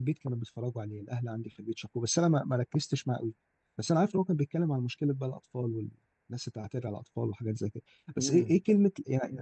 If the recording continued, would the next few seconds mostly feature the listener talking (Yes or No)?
No